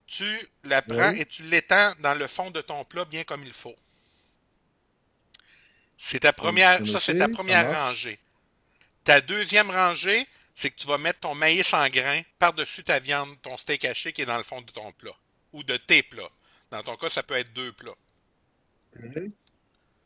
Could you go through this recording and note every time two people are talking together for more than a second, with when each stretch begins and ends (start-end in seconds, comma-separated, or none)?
6.4-8.0